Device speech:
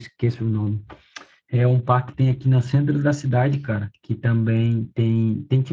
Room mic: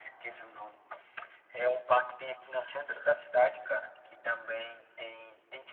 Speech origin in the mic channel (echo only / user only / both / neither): echo only